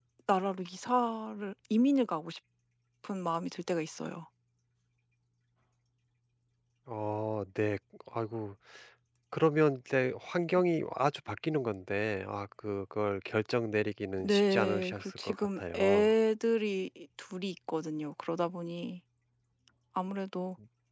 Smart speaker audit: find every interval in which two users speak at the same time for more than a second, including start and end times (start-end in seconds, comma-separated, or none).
14.2-16.1